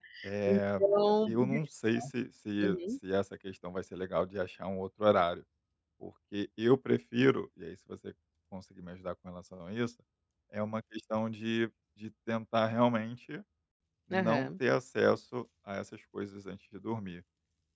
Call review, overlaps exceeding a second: none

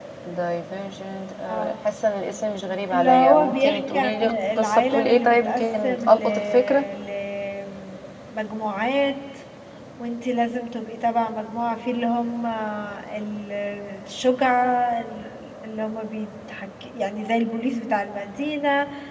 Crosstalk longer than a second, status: present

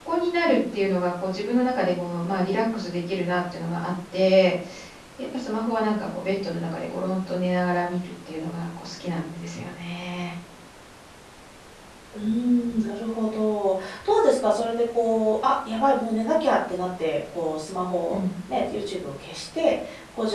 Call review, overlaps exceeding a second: none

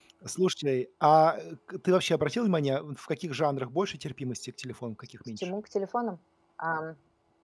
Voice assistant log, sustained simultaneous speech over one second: none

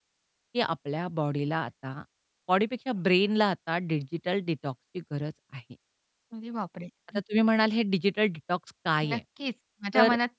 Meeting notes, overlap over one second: none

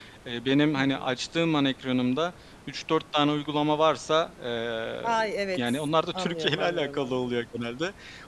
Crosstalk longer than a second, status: present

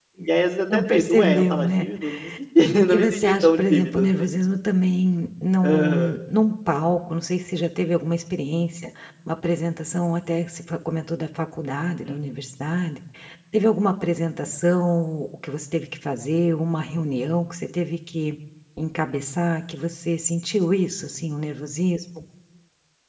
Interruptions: present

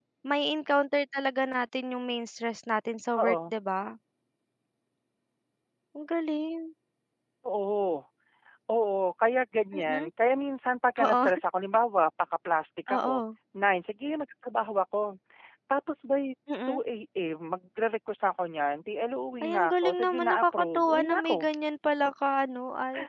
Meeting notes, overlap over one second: present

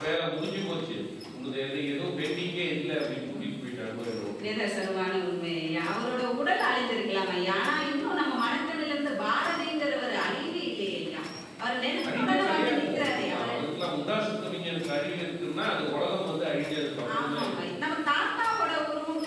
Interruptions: present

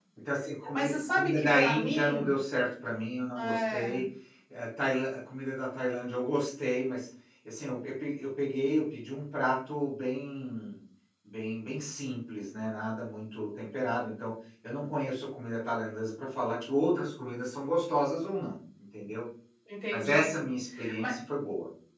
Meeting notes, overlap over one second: present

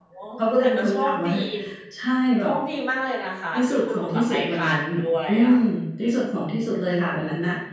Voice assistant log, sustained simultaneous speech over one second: present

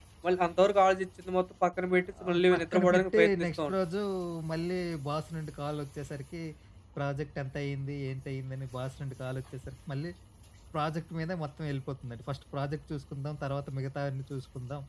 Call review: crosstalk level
present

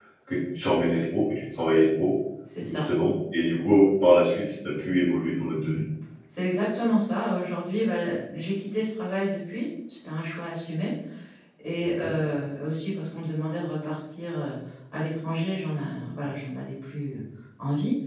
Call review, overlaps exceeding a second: none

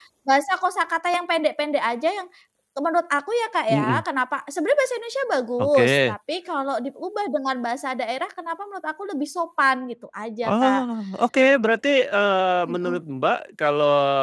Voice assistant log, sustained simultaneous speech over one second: none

